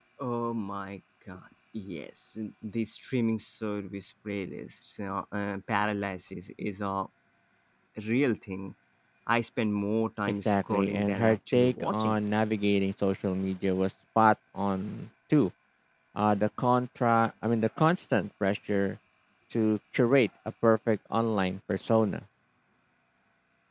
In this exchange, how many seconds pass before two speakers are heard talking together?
10.4 s

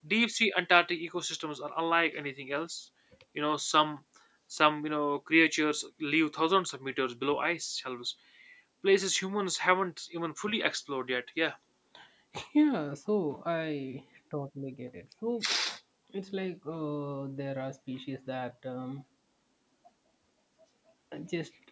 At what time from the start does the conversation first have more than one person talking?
none

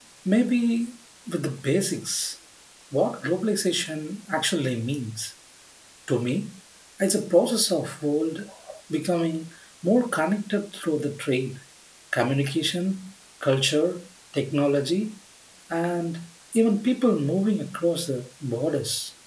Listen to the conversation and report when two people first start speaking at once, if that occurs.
none

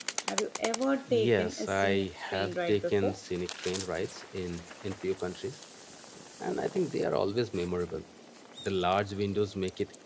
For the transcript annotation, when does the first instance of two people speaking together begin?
1.1 s

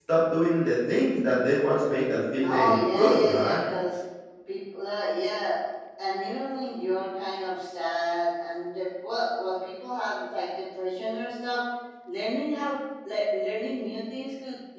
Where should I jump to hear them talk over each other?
2.3 s

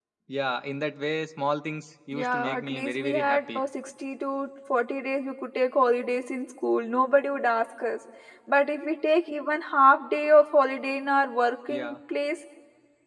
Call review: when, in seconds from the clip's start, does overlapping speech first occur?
2.1 s

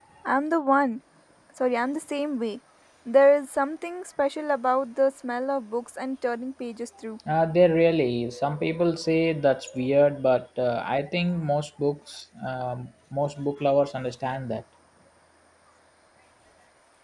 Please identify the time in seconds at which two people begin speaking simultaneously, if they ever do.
none

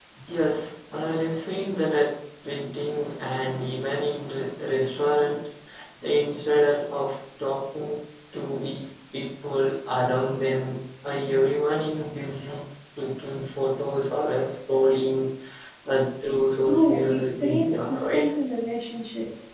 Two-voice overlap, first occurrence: 16.6 s

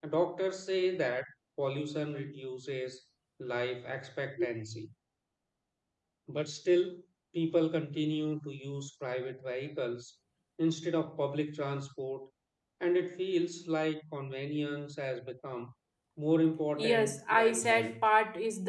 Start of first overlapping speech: 16.8 s

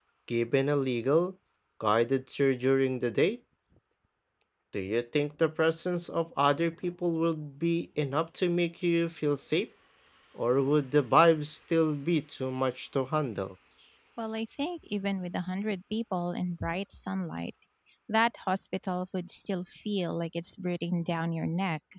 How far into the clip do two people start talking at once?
none

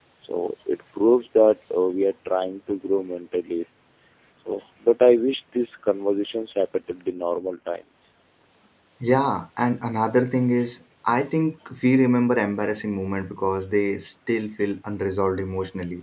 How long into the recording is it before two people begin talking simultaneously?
none

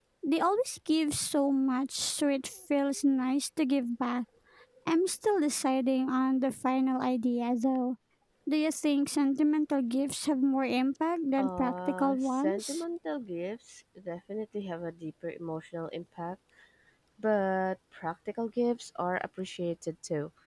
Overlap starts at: 11.4 s

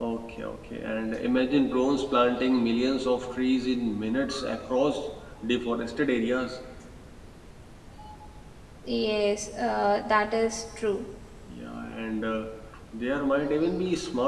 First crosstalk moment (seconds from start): none

